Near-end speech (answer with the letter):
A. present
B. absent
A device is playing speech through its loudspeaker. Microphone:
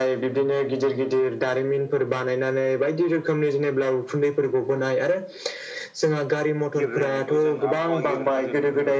A